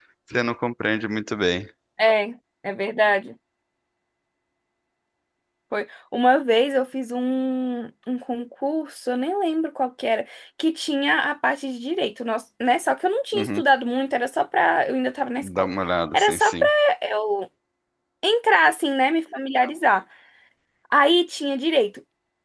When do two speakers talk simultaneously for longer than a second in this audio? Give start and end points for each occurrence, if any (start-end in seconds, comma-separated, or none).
none